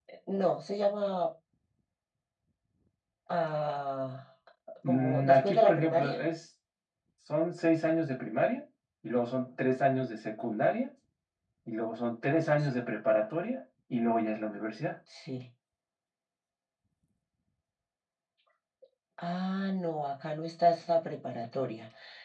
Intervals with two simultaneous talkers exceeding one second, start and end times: 4.9-6.2

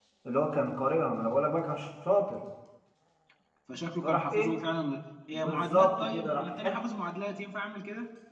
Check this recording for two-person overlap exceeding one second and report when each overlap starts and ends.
5.3-6.8

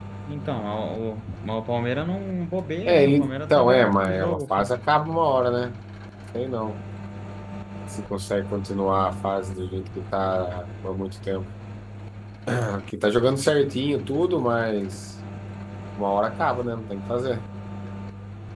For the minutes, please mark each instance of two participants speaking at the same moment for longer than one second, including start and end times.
2.9-4.7

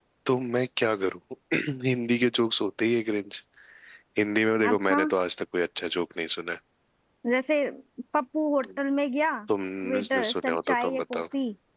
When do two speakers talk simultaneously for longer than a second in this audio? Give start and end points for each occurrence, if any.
9.9-11.2

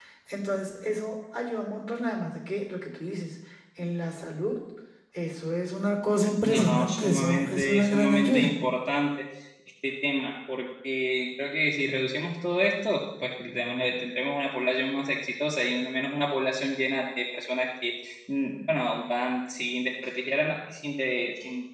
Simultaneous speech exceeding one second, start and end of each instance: 6.4-8.5

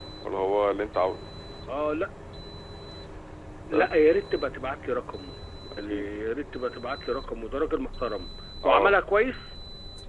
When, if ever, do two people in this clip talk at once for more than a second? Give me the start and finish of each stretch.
none

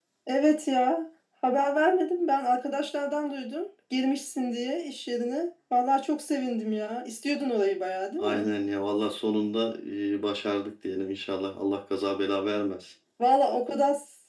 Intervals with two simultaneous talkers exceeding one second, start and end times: none

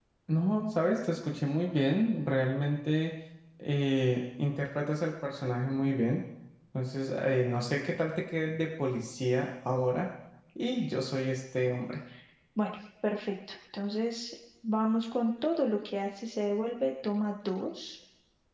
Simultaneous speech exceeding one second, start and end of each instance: none

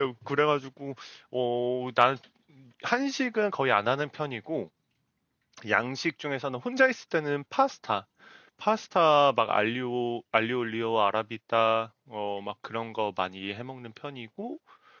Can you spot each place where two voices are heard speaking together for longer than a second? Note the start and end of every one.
none

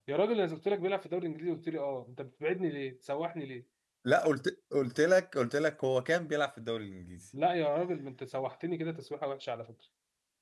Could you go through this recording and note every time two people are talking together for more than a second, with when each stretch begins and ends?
none

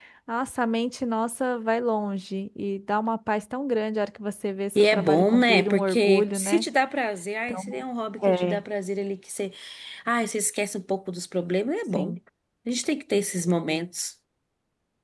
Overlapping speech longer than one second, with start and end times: 4.8-6.6

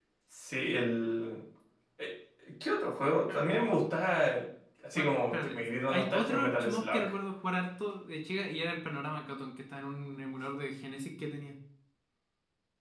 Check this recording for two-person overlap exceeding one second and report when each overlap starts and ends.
5.0-7.0

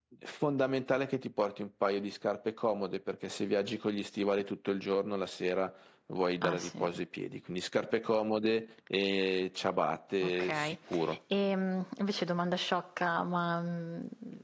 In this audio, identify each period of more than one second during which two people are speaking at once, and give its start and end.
none

